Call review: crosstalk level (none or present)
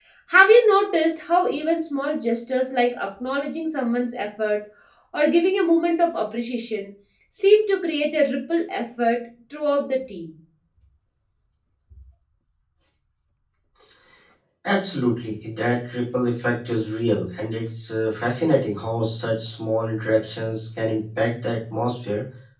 none